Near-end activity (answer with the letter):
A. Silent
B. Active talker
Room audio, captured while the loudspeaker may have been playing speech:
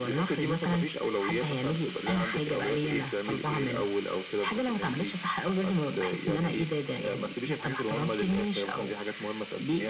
A